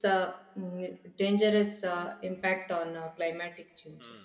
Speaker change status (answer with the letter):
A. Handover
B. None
A